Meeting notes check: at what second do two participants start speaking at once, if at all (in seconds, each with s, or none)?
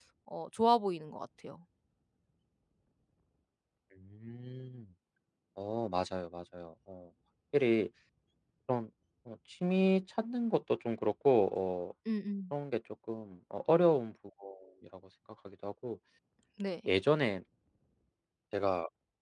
none